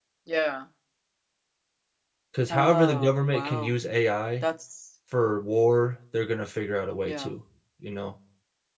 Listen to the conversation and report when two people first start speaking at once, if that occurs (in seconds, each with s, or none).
2.5 s